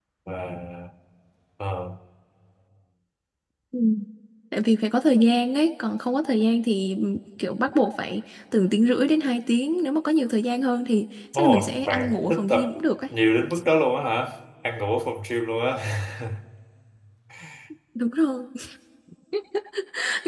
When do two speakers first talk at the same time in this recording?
11.3 s

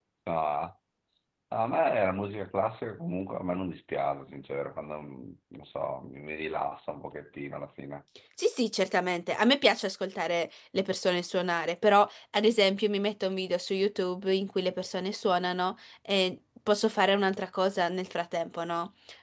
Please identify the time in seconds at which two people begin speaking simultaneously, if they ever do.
none

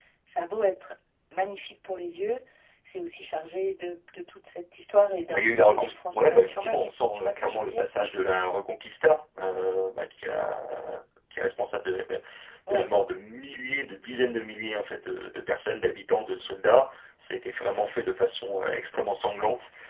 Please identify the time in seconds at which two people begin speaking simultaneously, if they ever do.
5.3 s

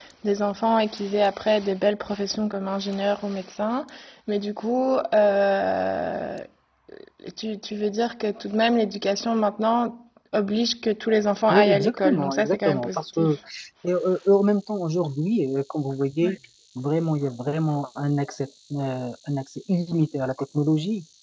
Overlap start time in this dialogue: 11.5 s

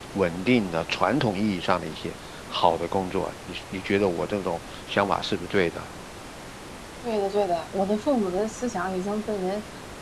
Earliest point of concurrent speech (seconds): none

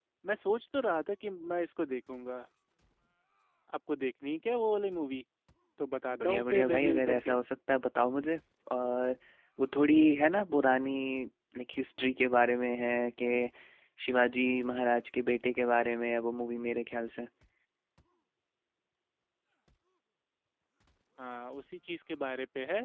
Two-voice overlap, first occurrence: 6.1 s

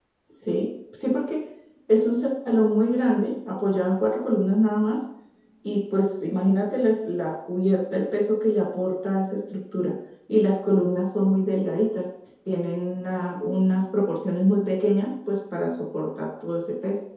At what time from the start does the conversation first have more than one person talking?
none

